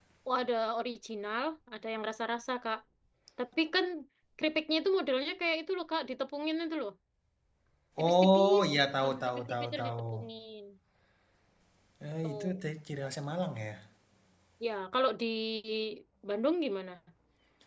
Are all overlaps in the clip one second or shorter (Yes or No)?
No